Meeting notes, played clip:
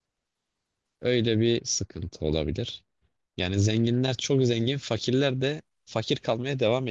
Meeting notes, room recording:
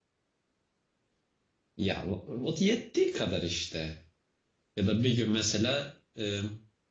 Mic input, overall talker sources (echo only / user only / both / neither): user only